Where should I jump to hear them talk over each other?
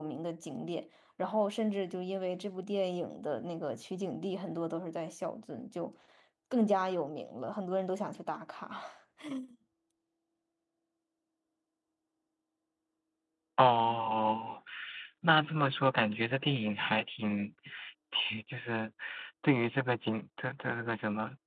none

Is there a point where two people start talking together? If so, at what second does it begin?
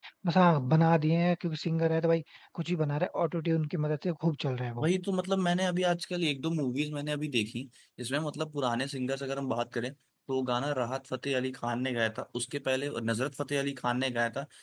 none

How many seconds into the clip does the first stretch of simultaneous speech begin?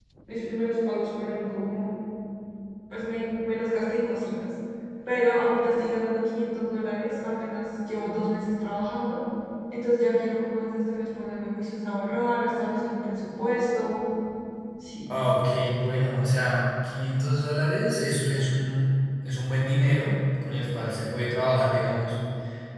none

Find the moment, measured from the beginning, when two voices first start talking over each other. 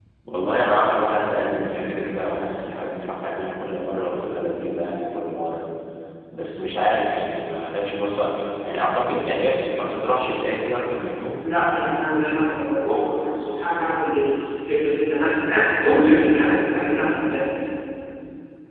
none

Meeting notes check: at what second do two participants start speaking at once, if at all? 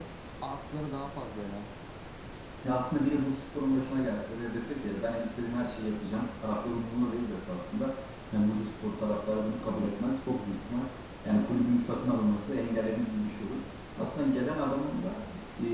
none

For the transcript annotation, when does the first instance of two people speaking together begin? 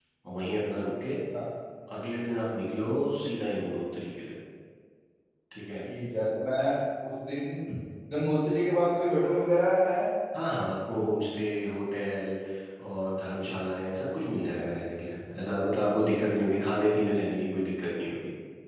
none

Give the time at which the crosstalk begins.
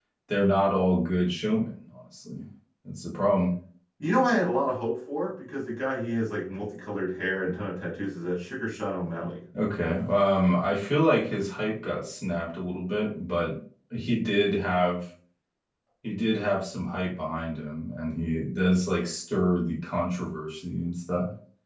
none

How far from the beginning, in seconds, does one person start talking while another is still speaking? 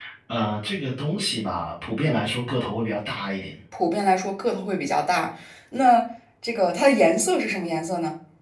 none

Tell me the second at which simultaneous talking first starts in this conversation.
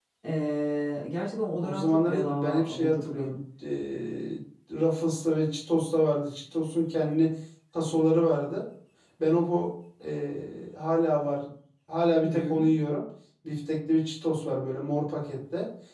1.6 s

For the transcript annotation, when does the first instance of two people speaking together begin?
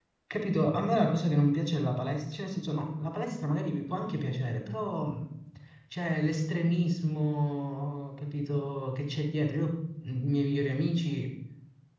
none

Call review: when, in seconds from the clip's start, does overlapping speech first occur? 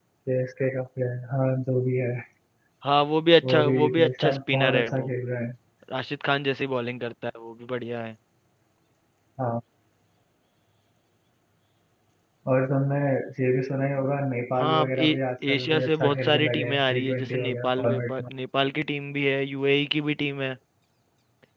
3.5 s

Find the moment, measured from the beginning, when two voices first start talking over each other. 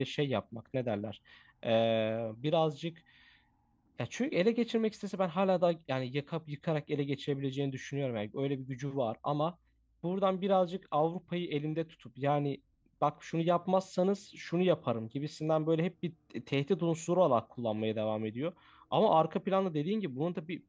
none

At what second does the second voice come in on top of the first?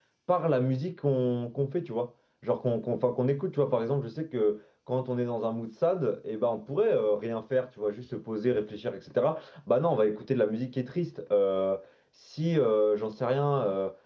none

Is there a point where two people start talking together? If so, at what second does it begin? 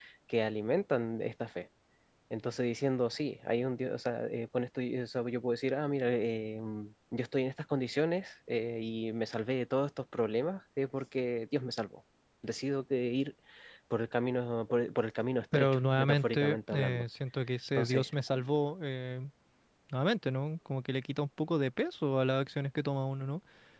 15.5 s

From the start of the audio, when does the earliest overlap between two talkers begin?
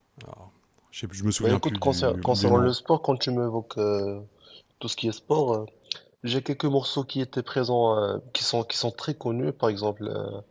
1.4 s

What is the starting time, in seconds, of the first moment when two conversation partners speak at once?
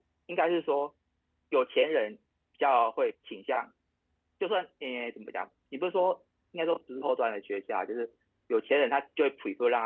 none

